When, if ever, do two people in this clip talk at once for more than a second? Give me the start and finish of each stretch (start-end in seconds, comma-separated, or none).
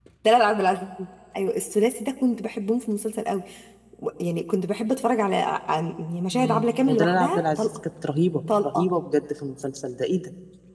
6.3-7.8